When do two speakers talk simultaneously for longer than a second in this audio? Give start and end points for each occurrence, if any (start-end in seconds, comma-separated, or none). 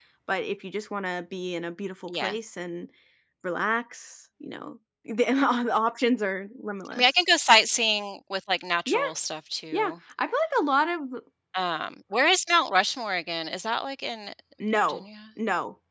none